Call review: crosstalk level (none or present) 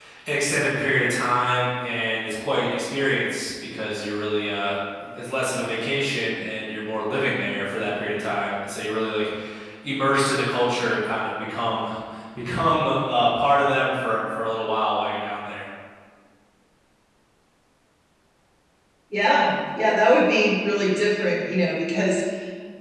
none